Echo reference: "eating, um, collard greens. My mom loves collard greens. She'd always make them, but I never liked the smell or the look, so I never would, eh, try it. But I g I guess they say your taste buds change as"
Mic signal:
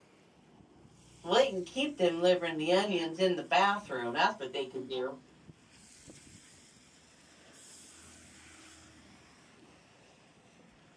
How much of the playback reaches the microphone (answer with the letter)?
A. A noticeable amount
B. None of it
B